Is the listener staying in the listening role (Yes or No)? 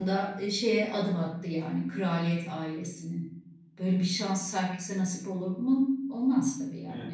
No